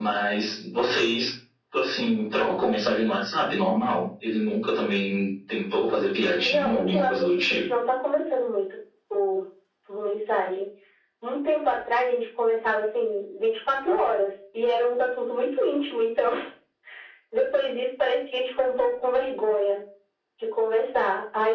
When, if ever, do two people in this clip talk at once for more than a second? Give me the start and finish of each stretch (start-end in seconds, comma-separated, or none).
6.4-7.7